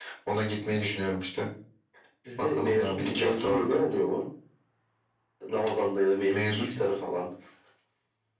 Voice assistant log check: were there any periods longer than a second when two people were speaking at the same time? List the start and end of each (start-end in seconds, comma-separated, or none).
2.4-3.8